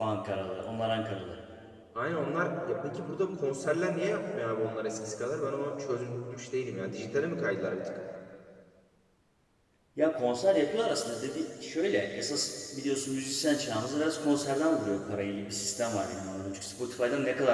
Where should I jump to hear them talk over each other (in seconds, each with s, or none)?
none